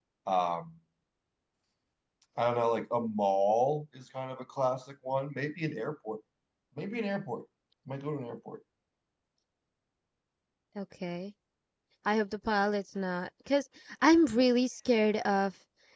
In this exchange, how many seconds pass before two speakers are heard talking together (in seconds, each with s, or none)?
none